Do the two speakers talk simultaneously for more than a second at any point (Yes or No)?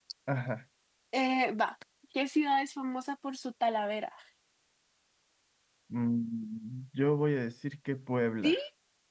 No